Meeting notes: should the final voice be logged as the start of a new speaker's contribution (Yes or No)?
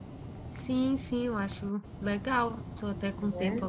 No